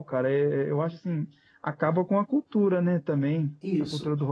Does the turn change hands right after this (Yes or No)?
No